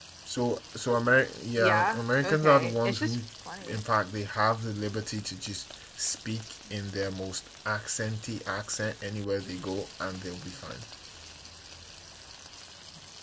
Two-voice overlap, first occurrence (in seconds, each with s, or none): 1.6 s